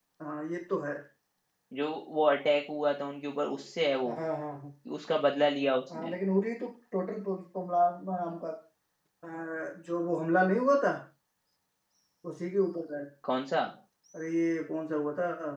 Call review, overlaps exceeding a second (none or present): none